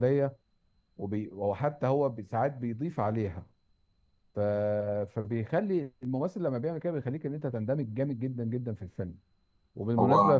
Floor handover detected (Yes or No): No